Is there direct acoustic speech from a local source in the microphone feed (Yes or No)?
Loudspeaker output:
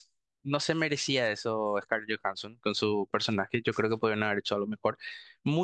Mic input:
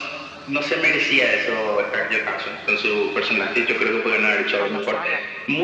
Yes